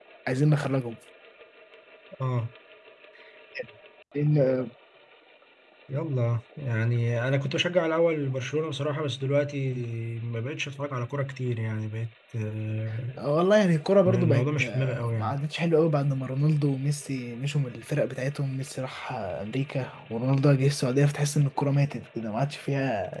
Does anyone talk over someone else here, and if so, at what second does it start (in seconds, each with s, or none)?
14.1 s